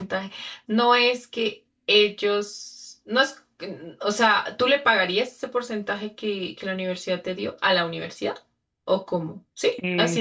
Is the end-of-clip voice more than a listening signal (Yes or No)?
Yes